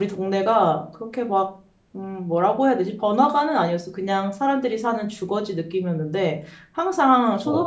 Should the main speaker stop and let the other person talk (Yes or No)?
No